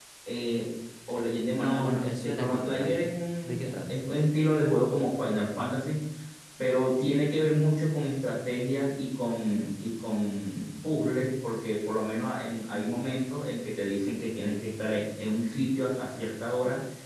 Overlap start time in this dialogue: 1 s

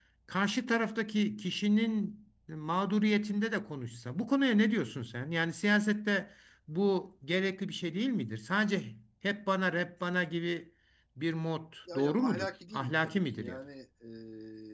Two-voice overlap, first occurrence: 12 s

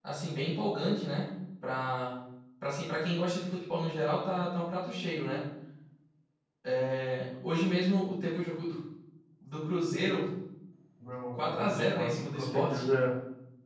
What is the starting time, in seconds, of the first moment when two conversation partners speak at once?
11 s

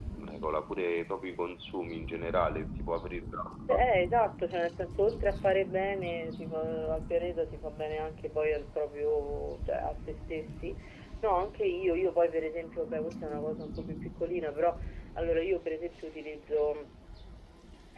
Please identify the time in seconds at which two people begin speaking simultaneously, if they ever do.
none

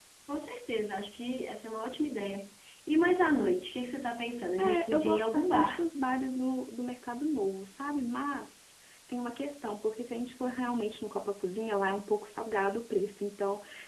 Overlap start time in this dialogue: 5 s

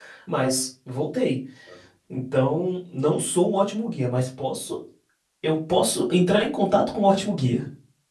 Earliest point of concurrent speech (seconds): none

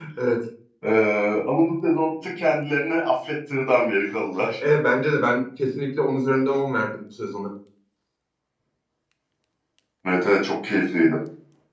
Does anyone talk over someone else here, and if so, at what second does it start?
none

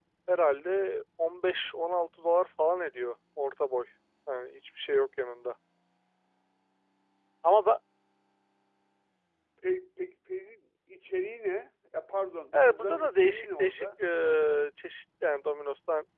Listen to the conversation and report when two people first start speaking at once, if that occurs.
13 s

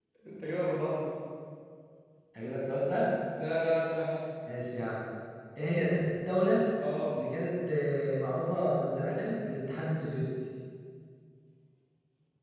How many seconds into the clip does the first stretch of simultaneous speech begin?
none

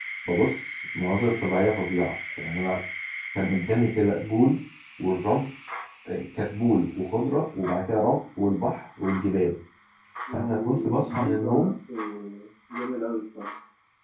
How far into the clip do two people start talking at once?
10 s

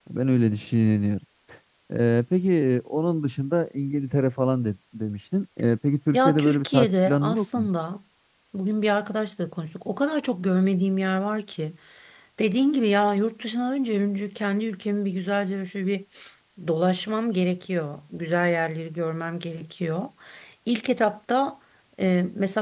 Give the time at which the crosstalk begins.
6 s

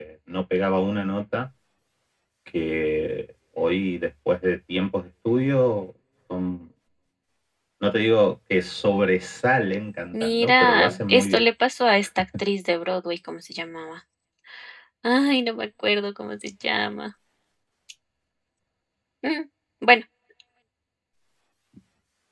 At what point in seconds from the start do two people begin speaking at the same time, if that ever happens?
10 s

